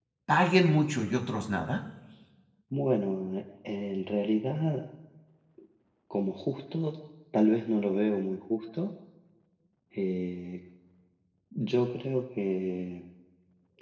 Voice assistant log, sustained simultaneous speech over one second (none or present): none